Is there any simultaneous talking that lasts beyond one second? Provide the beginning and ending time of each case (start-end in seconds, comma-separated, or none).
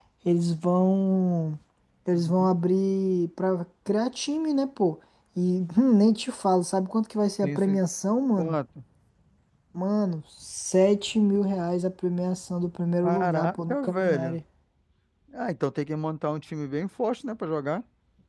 13.0-14.4